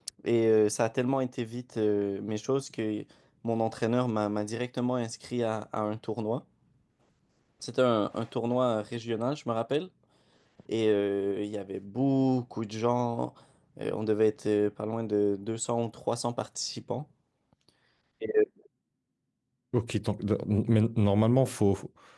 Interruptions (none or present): none